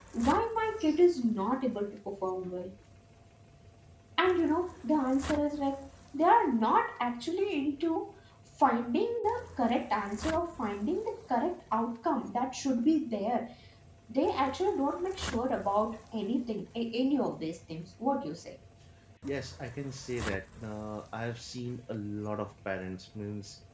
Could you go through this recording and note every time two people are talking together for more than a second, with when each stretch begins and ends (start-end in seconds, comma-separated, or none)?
none